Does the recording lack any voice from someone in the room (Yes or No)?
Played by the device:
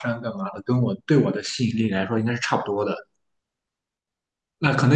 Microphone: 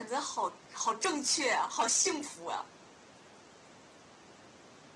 No